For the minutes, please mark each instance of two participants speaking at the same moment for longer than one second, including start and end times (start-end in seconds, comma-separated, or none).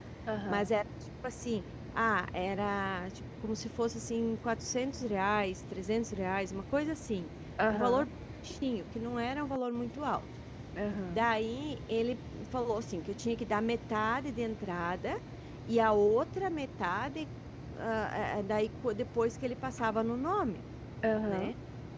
none